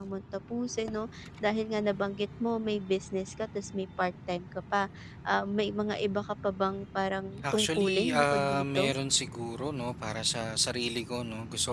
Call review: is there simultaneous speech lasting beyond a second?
Yes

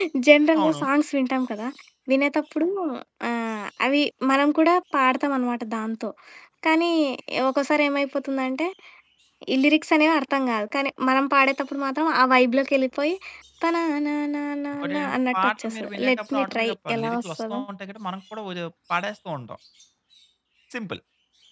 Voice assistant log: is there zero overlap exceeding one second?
No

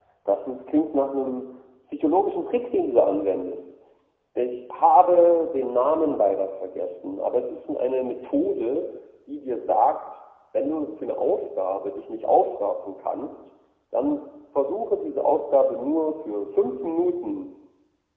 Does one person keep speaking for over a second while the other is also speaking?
No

